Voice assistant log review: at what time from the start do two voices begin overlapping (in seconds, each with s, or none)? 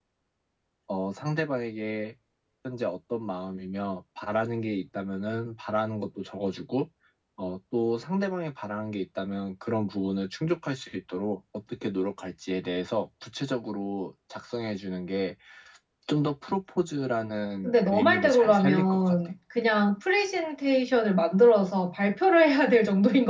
17.6 s